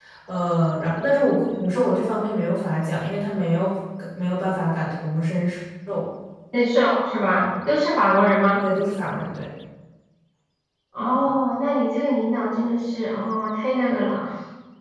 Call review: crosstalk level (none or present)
none